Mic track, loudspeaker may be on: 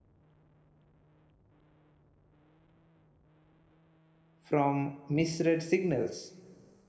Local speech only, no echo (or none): from misread signals.